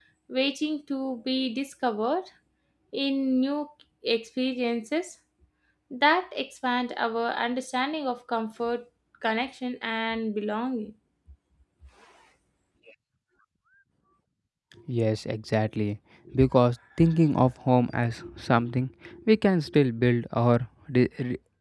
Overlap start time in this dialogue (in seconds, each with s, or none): none